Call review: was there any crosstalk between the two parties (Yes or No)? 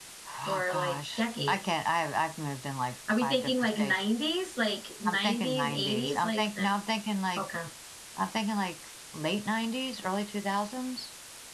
Yes